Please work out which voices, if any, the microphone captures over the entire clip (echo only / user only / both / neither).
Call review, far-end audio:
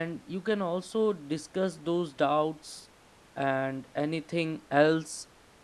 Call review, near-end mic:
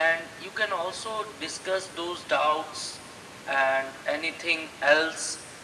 echo only